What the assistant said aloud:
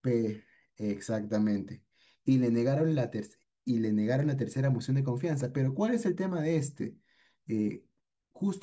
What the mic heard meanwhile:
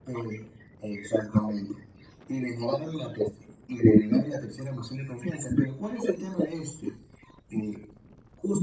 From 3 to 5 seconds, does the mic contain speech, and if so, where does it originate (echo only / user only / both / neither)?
echo only